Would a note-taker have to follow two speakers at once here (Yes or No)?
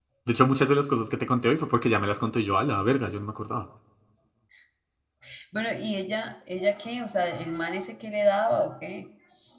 No